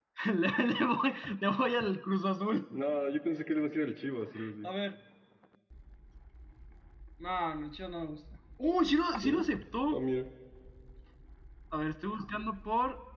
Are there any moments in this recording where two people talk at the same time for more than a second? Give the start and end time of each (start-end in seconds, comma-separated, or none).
none